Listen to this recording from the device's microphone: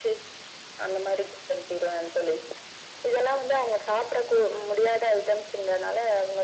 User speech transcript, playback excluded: none

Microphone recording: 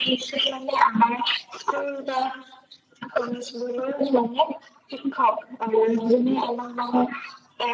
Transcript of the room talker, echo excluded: none

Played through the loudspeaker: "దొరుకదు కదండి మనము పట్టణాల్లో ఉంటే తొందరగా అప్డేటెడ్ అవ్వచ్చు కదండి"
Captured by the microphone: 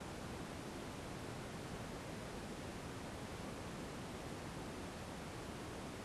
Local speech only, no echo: none

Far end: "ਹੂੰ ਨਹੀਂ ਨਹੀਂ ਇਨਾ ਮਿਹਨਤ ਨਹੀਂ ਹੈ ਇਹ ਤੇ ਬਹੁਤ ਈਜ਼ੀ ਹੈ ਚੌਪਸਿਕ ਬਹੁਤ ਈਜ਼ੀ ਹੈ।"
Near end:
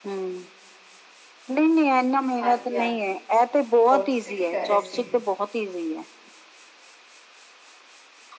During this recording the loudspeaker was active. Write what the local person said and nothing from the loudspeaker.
ਹਾਂਜੀ ਹਾਂਜੀ ਹੋਰ, ਤੁਸੀਂ ਕੀ ਕਰ ਰੇ ਸੀ?

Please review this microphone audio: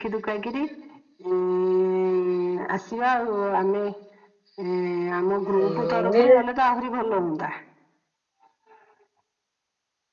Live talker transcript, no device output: ହୁଁ ଯେ

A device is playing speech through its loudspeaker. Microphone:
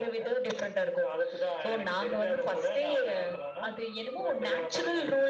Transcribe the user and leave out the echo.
none

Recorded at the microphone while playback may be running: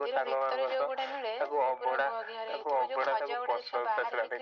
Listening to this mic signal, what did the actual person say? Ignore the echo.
none

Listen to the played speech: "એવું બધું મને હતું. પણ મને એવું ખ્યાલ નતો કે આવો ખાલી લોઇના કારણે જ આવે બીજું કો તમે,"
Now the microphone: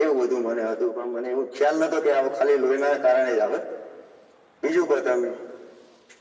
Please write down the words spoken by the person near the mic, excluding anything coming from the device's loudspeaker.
none

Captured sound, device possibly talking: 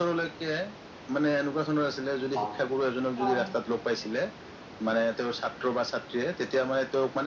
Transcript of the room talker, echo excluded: হয় হয় হয়

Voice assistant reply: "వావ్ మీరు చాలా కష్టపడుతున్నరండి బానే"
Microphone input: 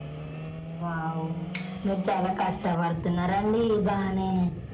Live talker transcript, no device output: none

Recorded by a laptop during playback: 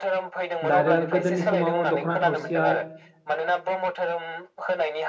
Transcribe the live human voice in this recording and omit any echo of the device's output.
दा आरो गोदोनि समाव दख'ना थावसिया

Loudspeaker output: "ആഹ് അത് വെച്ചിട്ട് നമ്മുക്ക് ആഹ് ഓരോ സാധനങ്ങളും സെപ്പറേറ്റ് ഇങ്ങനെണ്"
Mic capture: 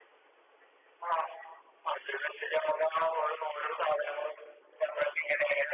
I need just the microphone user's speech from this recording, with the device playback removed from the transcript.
none

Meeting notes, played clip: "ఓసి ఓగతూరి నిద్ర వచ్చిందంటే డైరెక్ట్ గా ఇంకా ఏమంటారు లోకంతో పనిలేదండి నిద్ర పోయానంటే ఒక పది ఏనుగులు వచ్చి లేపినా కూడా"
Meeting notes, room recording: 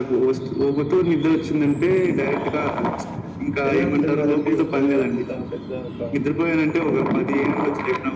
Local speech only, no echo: ఎలా ఉంటున్నరండి ఒక్కరే అంత పెద్ద ఒక

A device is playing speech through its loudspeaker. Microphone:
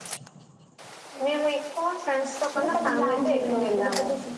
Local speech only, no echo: మ్మ్

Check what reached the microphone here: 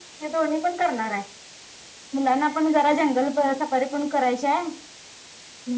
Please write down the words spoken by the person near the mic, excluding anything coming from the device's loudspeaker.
none

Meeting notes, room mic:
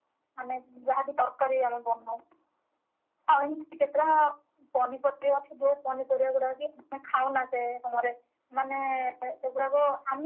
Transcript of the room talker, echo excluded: none

